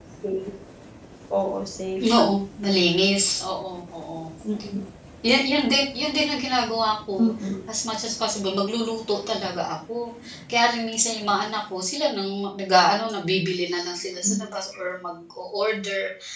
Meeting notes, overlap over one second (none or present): none